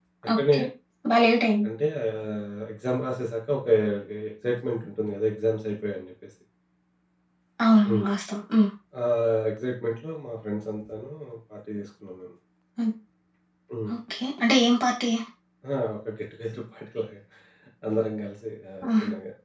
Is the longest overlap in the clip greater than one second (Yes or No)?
No